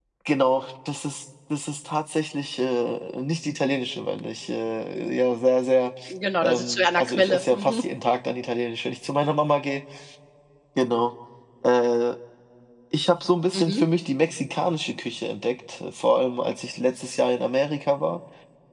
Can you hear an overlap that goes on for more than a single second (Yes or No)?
Yes